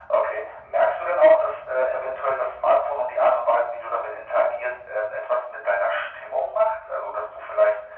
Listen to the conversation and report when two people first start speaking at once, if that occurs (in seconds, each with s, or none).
none